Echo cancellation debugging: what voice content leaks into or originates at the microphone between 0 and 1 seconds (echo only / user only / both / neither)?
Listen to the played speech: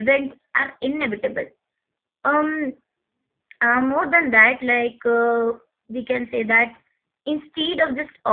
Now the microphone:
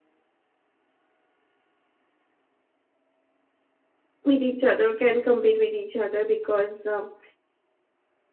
neither